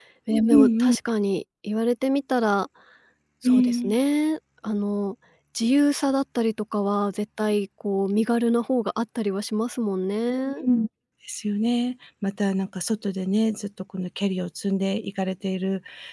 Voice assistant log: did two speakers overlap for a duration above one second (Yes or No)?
No